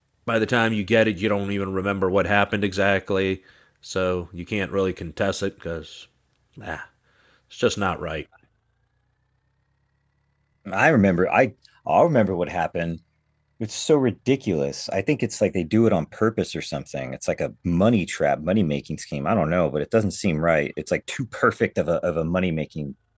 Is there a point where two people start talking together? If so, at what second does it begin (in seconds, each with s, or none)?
none